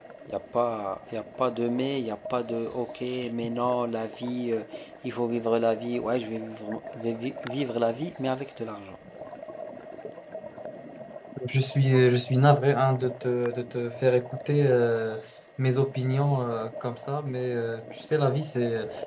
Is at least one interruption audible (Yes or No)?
No